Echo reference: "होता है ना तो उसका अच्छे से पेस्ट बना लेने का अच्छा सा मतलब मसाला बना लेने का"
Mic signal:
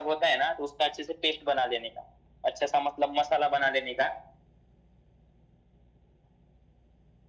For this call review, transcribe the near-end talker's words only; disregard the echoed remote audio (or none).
none